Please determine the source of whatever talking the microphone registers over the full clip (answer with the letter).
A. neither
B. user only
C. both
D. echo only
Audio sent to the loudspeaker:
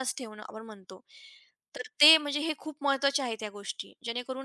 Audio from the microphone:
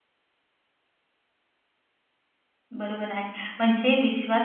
B